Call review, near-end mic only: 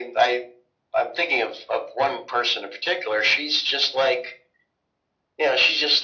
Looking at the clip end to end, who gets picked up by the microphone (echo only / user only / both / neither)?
echo only